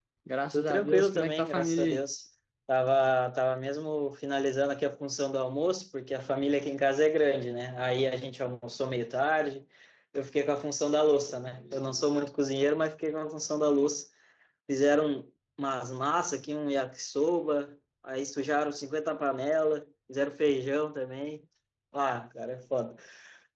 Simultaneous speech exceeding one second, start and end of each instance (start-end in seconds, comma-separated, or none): 0.5-2.0